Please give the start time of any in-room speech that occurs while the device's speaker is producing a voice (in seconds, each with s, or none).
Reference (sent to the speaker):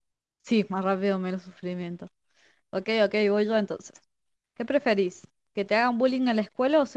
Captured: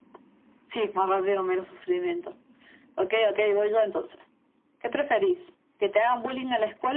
none